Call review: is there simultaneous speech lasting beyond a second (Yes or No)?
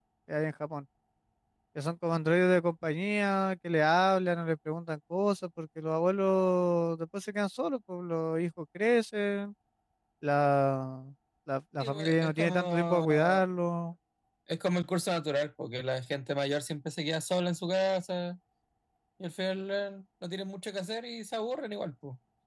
Yes